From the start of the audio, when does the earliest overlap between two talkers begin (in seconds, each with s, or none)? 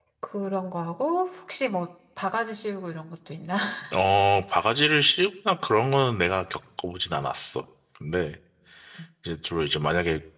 none